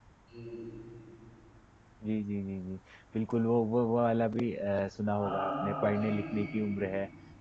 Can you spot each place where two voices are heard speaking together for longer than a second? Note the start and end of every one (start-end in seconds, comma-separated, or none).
5.1-6.5